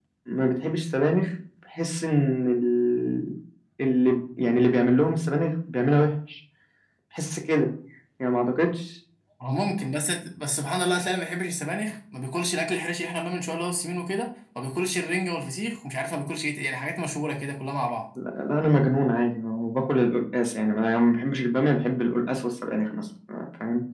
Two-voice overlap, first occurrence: none

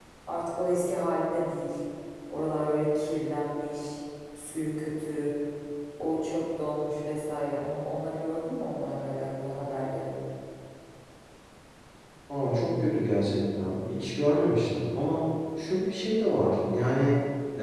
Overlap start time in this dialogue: none

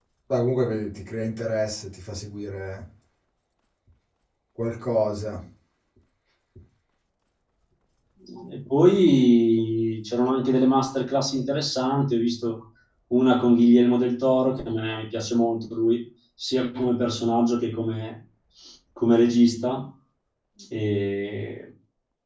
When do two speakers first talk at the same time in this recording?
none

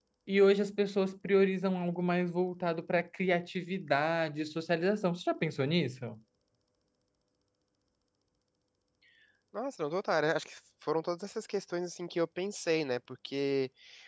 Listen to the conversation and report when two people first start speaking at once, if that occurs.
none

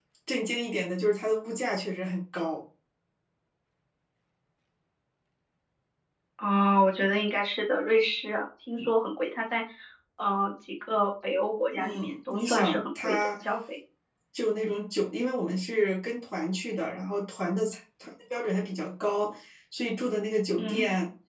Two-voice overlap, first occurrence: 11.8 s

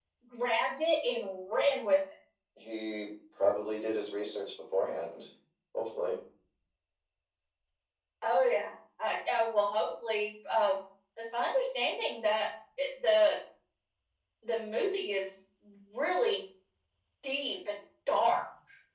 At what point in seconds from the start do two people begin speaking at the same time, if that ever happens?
none

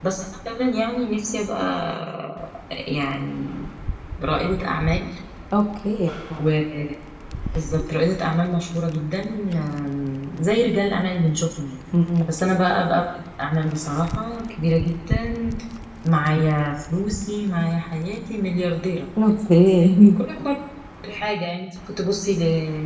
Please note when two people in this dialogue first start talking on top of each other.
none

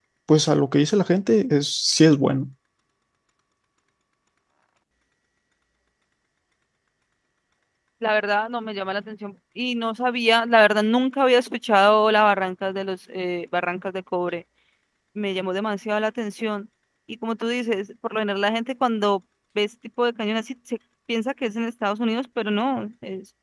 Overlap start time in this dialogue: none

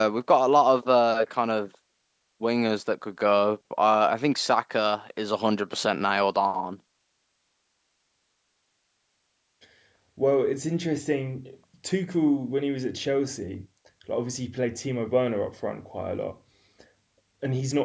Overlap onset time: none

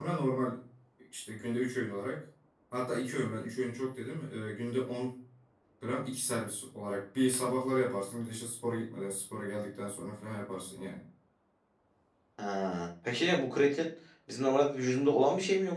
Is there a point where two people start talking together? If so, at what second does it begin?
none

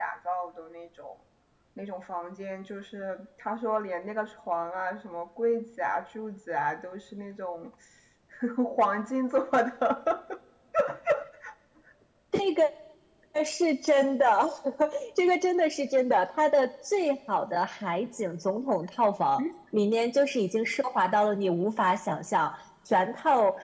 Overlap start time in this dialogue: none

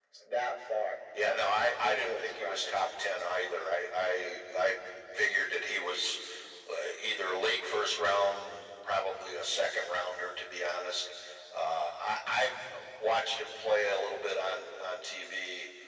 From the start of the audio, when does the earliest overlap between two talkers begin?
1.2 s

